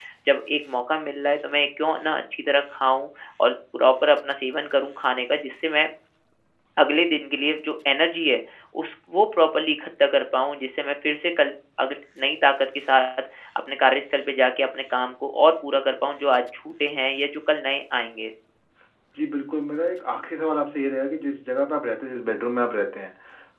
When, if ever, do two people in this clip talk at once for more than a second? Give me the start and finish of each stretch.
none

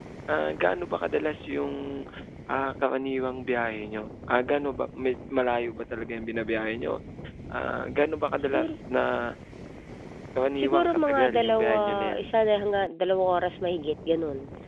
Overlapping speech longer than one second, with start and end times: 10.5-12.2

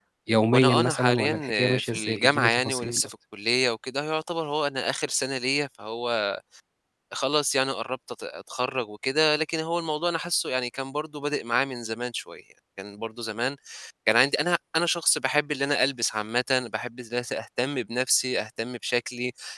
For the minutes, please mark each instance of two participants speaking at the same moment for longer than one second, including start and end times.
0.5-3.1

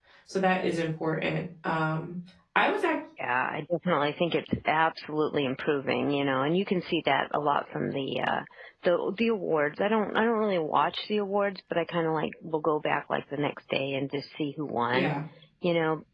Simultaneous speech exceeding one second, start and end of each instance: none

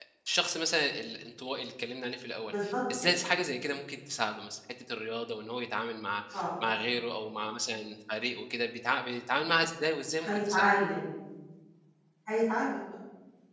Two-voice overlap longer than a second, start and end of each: none

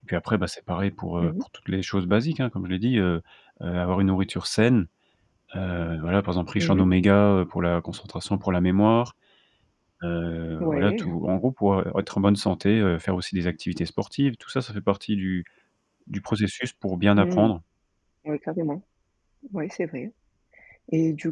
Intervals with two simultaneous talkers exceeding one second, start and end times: none

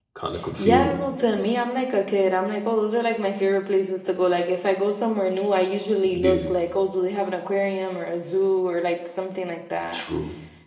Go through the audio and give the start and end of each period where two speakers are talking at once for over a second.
none

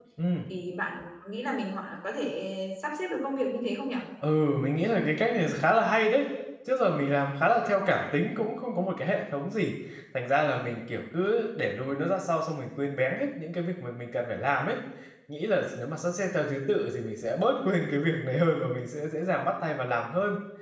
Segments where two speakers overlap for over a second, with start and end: none

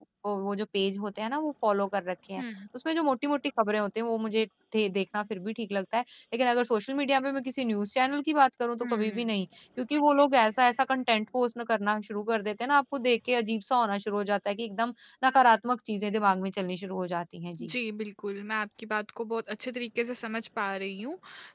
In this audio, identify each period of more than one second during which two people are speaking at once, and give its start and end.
none

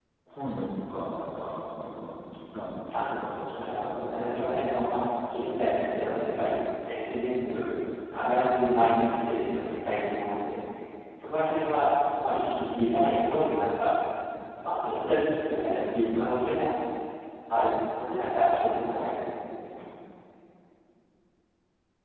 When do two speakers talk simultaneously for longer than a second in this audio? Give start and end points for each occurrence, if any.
3.5-5.0

